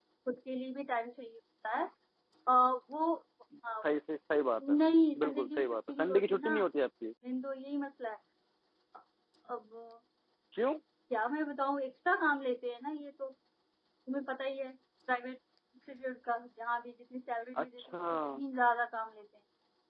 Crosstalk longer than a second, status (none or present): present